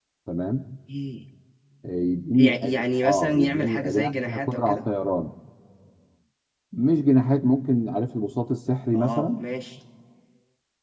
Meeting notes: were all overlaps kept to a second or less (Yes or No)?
No